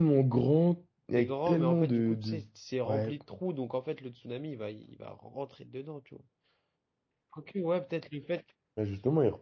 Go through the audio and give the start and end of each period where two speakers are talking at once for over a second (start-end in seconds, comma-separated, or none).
1.2-2.4